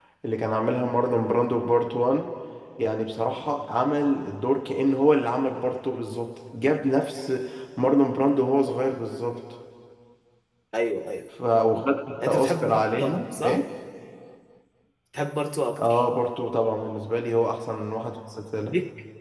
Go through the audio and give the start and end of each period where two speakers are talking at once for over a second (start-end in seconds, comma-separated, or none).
12.2-13.6